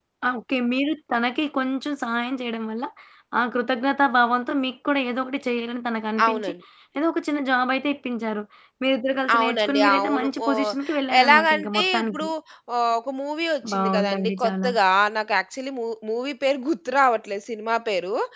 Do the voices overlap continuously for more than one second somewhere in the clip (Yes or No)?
Yes